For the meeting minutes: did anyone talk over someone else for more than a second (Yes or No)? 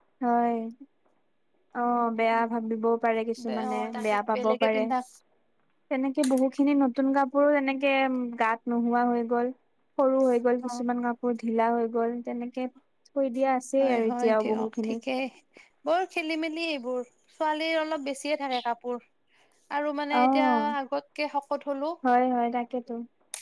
Yes